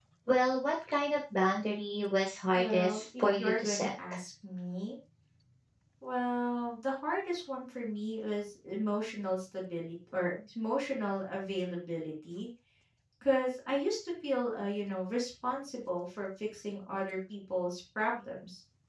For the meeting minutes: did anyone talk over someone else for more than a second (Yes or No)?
Yes